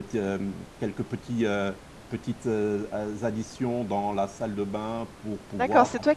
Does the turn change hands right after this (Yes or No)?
Yes